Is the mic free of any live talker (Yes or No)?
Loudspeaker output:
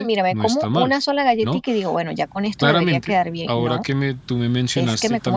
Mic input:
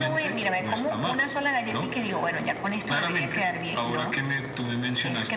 Yes